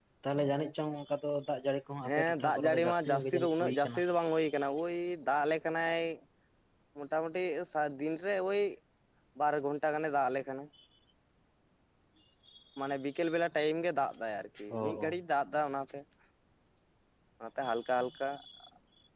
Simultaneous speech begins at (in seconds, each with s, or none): 2.2 s